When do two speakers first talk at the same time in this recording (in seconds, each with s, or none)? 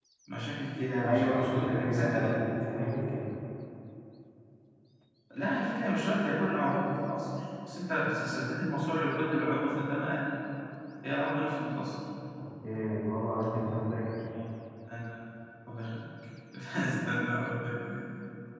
1.0 s